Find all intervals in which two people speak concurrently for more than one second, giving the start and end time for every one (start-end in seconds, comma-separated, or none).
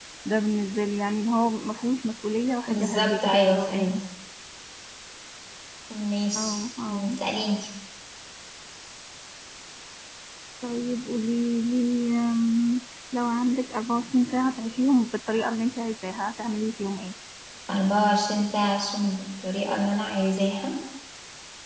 2.7-4.0